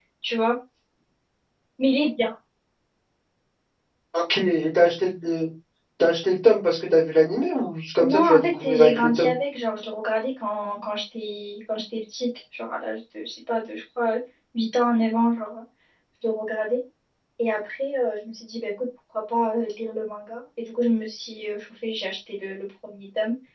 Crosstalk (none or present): present